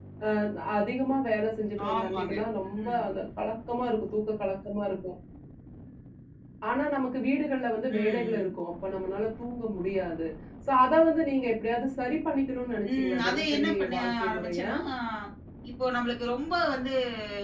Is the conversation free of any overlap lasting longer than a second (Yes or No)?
No